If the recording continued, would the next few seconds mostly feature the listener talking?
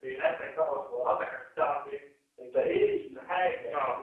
No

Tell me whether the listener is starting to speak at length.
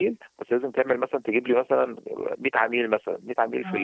No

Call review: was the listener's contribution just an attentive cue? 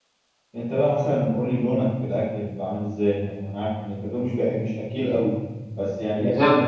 Yes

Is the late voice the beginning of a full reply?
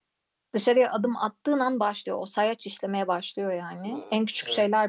No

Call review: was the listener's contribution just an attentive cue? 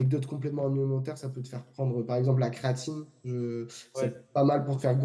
Yes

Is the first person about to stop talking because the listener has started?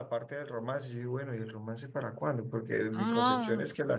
No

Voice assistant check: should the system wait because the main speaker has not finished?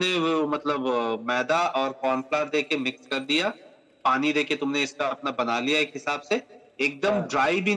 Yes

